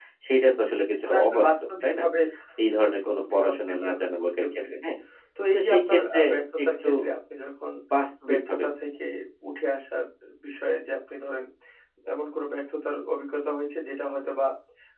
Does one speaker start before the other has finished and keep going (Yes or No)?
Yes